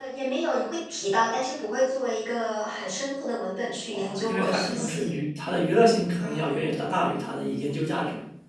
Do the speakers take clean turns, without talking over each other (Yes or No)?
No